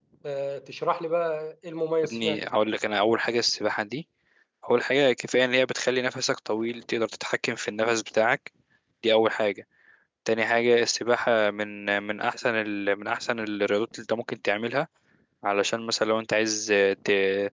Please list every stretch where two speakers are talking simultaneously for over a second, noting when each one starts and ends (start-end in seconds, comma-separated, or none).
none